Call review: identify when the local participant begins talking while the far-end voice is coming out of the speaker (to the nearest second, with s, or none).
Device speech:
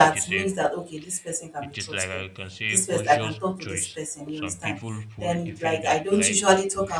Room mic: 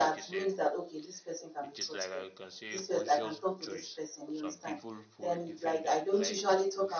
none